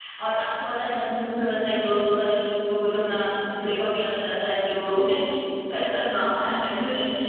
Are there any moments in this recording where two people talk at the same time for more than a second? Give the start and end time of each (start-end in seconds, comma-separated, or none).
none